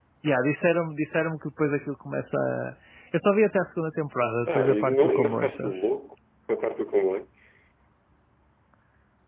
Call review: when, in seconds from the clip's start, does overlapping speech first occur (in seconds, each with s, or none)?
4.5 s